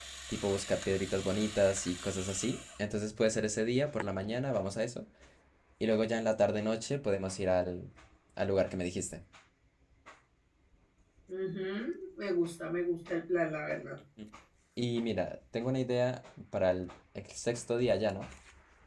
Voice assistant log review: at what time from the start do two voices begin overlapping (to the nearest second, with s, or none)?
none